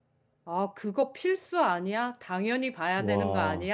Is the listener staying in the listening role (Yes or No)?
Yes